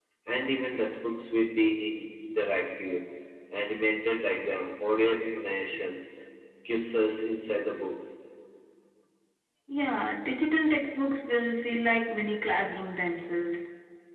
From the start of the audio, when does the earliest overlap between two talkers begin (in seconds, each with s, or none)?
none